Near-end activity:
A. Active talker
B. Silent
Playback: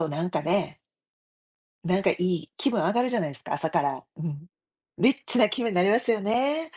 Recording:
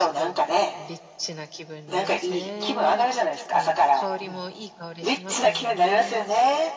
A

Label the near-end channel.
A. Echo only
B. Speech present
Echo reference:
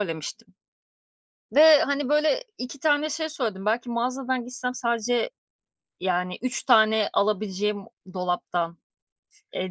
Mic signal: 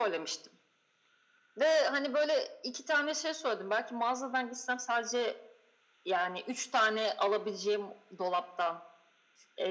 A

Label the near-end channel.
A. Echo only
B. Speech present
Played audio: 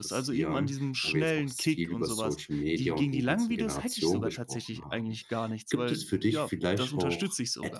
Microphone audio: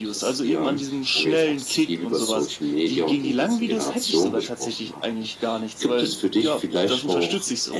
A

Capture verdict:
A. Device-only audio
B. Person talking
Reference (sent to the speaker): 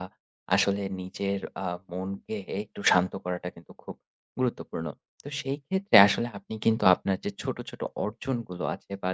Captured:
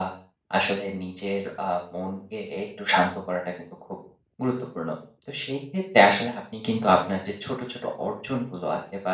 A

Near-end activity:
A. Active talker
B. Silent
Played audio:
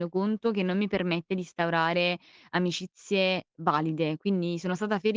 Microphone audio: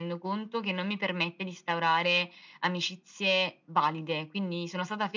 B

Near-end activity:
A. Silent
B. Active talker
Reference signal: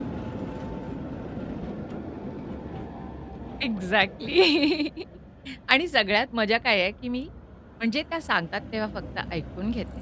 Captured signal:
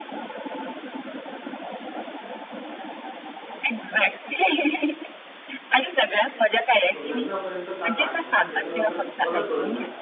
B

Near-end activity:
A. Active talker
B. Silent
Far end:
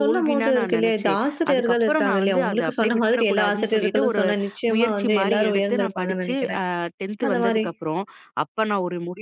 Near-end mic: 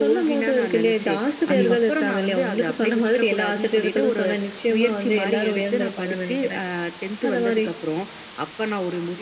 A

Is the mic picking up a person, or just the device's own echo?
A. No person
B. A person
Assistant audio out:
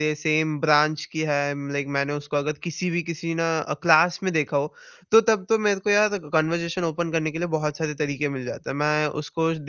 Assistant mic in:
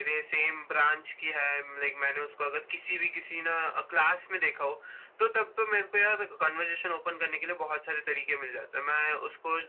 A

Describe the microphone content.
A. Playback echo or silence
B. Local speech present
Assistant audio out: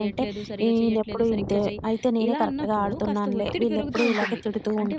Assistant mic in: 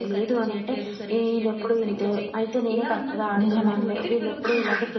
B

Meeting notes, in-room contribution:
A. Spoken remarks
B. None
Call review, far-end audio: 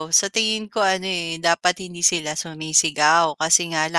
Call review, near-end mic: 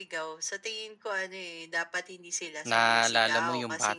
A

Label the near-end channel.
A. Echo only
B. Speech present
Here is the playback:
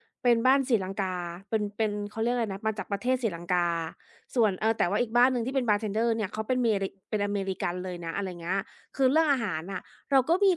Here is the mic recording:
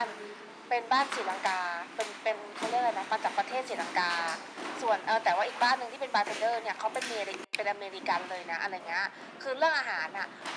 A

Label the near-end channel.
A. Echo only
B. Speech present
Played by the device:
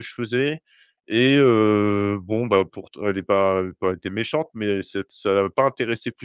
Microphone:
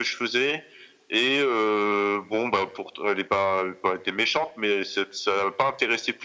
A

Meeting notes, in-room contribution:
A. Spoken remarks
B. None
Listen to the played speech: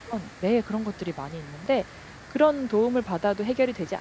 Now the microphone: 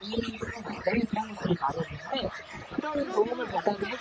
A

